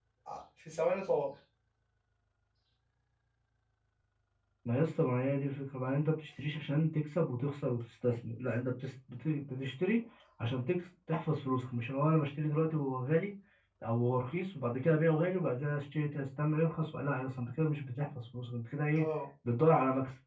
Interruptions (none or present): none